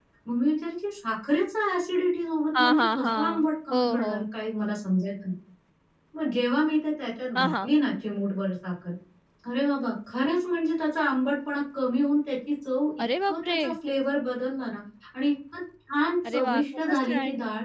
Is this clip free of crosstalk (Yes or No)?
No